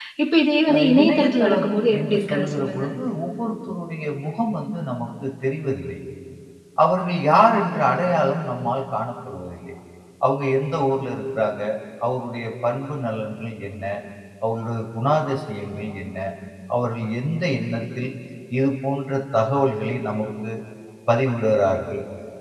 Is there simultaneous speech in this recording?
Yes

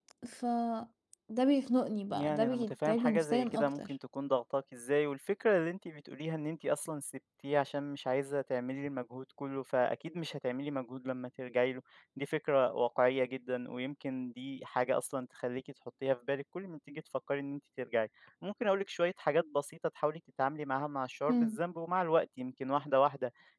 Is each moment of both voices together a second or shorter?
No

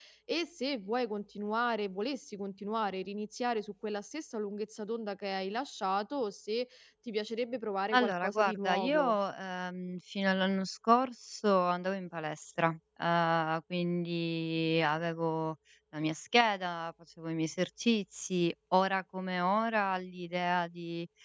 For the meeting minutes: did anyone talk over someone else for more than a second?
Yes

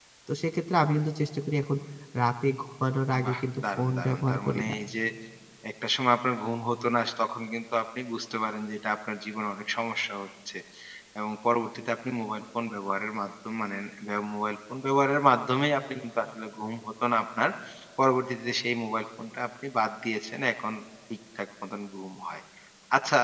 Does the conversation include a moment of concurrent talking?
Yes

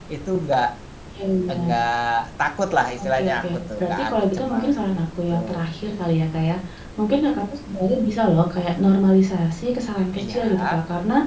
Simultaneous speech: Yes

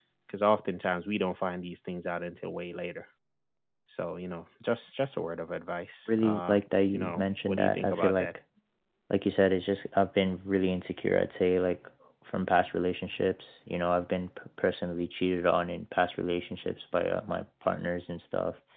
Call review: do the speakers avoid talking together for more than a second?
No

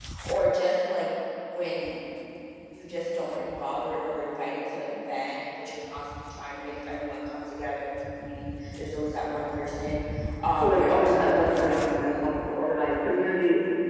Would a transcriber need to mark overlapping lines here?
Yes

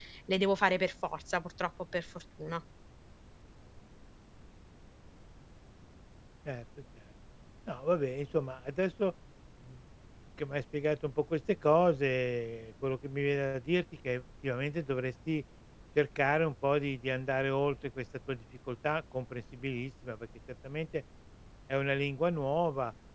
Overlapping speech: No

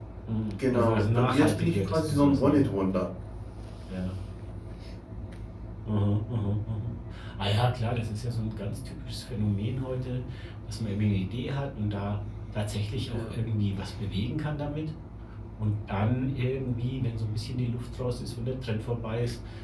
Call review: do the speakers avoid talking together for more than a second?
No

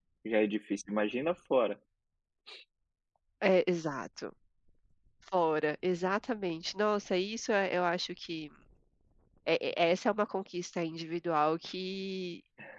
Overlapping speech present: No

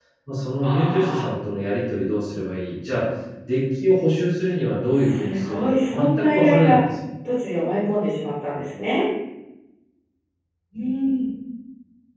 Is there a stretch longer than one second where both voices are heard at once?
Yes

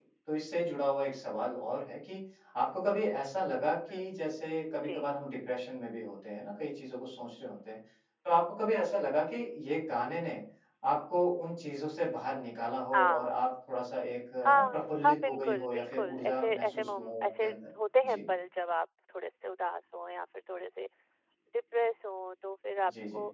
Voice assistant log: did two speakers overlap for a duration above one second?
Yes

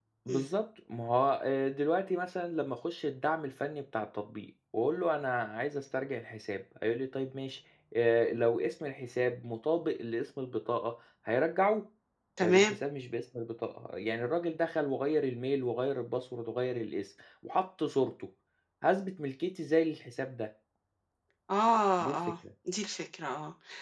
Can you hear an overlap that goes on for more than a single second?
No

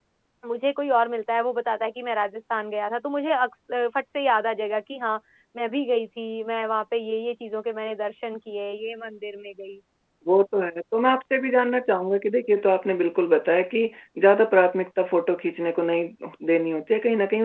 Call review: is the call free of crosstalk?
Yes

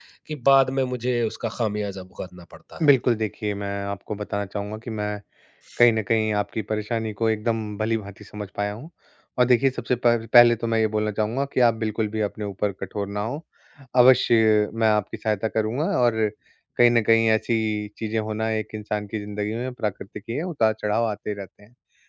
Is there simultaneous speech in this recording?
No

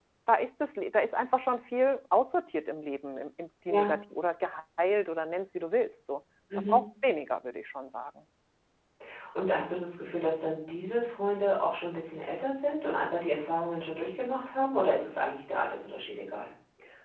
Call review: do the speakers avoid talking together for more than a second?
Yes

